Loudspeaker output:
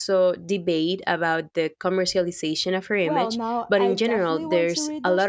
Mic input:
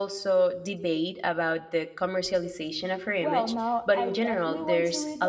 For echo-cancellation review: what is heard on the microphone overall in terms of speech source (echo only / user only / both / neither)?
echo only